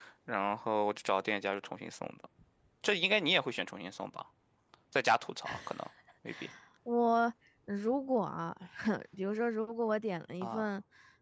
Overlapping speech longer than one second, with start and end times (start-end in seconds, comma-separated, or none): none